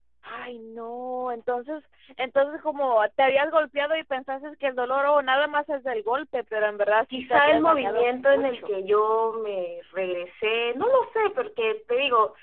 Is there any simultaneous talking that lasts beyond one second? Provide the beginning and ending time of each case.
7.1-8.7

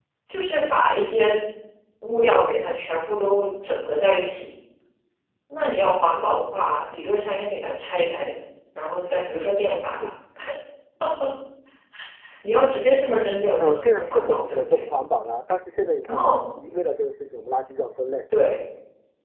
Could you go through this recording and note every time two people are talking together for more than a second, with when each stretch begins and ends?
13.6-14.8

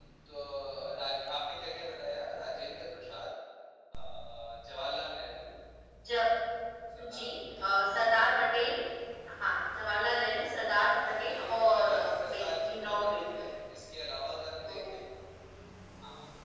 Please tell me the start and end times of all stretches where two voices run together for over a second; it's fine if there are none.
11.0-13.2

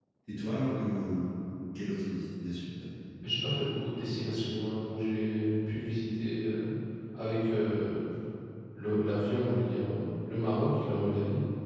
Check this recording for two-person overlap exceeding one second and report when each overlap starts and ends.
none

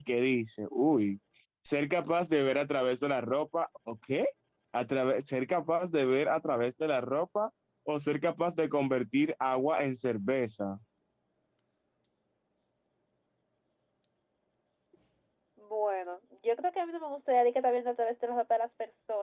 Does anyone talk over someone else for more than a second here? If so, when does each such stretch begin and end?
none

